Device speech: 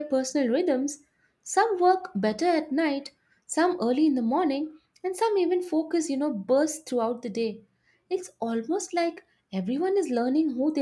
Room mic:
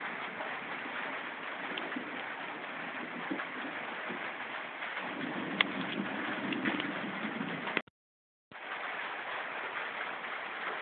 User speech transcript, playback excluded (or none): none